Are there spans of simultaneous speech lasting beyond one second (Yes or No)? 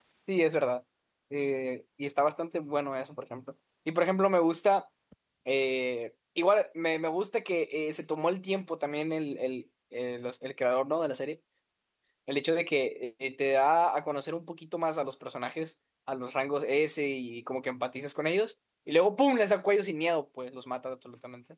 No